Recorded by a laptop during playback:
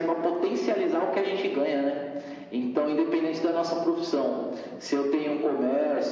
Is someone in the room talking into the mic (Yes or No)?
No